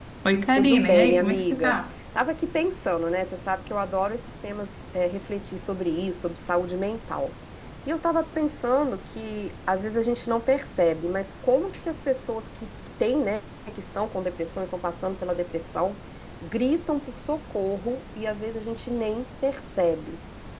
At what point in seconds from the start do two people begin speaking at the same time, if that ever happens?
0.6 s

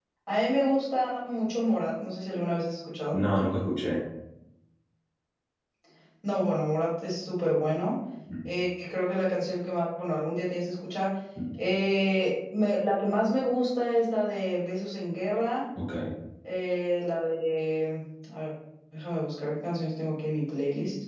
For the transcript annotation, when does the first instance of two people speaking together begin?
none

